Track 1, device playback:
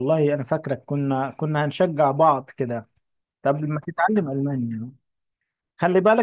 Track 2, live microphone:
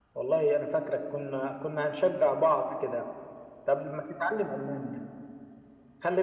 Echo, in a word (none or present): present